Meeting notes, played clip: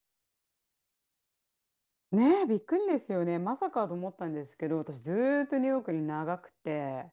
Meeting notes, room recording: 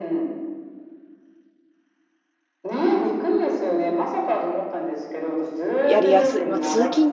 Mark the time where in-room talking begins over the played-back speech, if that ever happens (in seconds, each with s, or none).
5.9 s